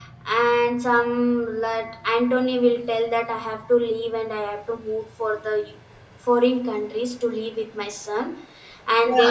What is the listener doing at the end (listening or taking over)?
taking over